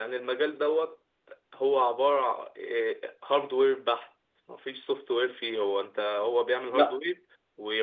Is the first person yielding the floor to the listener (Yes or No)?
No